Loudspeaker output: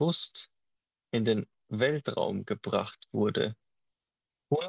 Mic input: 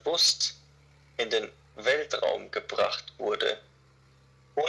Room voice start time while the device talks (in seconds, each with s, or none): none